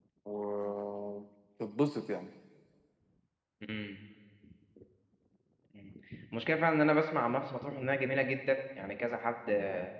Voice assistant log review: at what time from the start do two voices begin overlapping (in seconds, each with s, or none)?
none